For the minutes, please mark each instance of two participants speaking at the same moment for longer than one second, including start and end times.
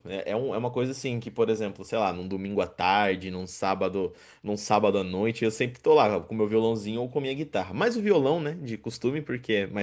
none

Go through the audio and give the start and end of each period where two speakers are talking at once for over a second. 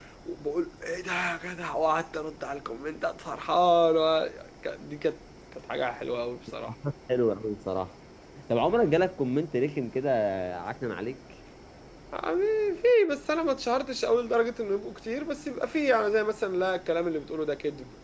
none

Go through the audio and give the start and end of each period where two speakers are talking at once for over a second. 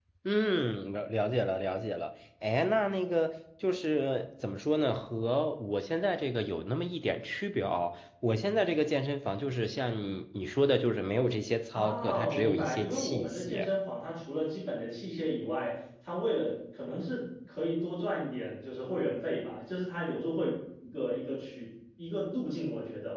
11.7-13.7

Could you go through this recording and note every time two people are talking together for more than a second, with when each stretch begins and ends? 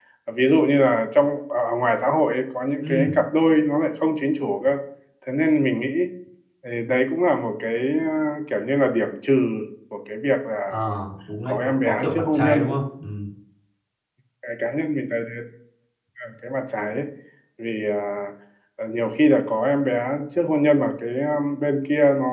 11.5-12.7

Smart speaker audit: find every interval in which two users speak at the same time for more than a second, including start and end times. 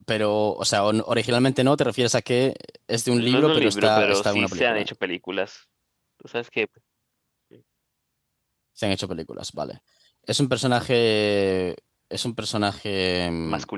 3.2-4.9

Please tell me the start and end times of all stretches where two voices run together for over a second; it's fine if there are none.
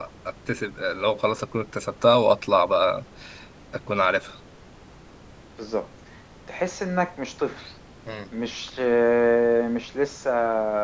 none

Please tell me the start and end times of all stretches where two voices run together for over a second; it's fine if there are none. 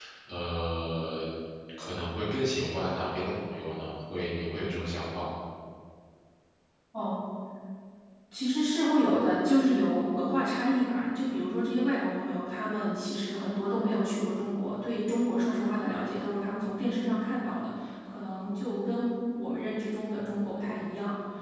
none

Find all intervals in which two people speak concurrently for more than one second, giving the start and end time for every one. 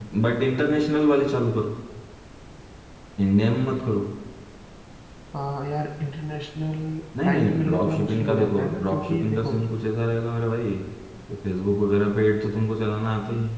7.2-9.6

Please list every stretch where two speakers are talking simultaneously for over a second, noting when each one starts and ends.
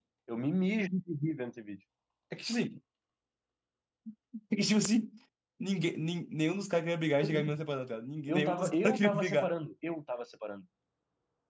8.3-9.5

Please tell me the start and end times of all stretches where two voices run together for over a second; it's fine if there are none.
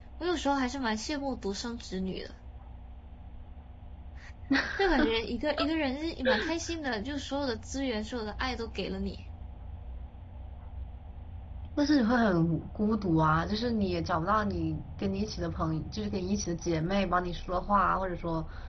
none

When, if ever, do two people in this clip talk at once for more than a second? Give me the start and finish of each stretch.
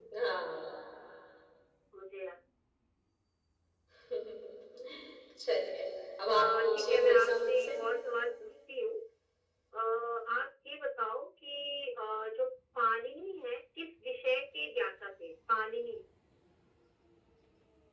6.3-7.7

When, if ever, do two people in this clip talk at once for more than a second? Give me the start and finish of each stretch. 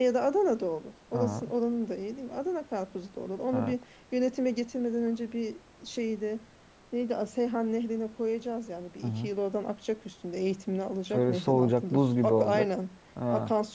11.1-12.7

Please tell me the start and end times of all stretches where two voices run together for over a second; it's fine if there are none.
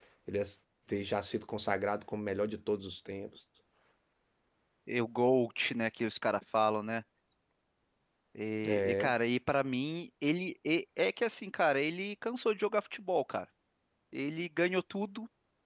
none

